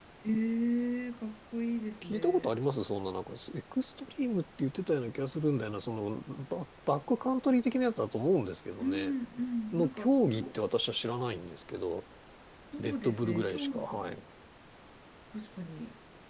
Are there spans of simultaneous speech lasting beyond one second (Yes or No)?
Yes